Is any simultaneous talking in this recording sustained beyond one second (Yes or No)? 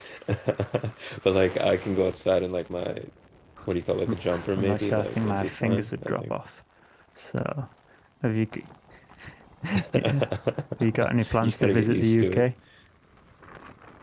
Yes